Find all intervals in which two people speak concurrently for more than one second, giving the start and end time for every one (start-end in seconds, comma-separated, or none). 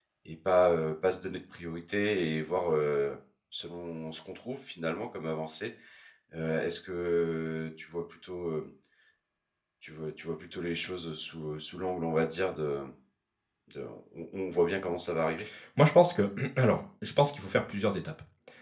none